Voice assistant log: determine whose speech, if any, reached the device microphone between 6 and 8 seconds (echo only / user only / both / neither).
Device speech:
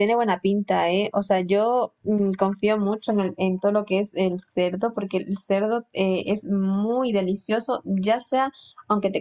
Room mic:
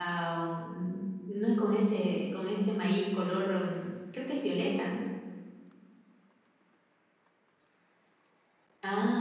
neither